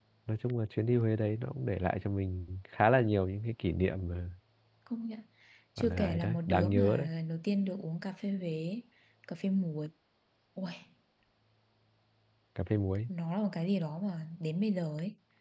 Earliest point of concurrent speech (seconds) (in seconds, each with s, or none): 5.8 s